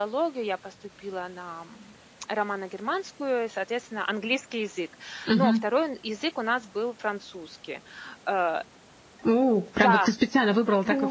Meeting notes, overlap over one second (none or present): none